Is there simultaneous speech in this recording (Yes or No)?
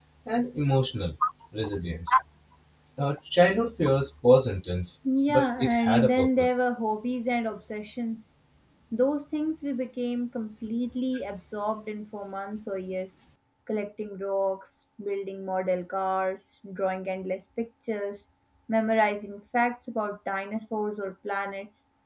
Yes